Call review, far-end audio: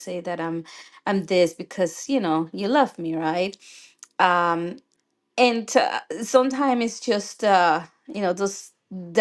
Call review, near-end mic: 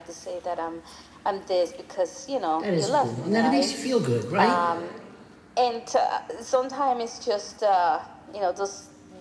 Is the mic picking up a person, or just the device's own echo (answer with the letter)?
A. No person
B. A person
B